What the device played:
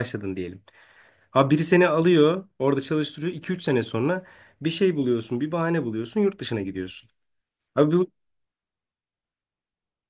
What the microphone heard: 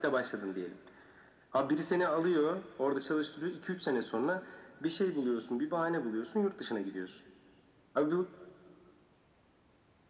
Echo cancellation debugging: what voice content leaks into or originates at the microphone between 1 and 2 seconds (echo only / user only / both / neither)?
echo only